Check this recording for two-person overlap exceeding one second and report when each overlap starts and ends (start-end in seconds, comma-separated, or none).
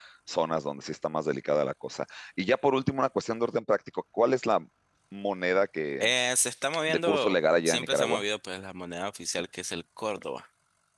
6.9-8.2